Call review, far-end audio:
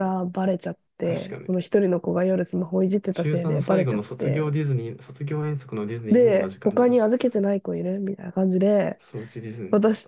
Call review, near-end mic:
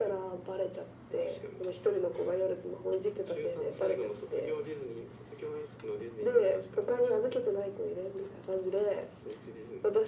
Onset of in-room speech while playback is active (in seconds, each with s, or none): none